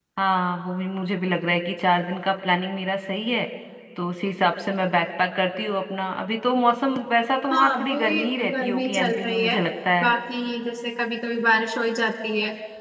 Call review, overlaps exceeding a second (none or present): present